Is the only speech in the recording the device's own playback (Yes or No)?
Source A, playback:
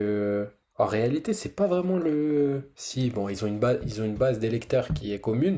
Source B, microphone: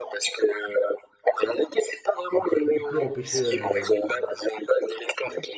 No